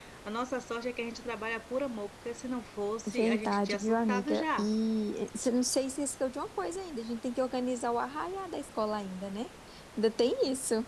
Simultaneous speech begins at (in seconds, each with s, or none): 3.1 s